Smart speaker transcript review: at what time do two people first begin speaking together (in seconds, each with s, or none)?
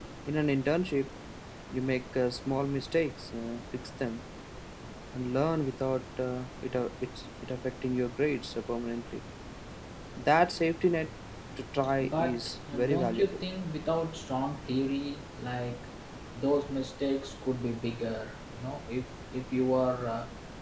12.0 s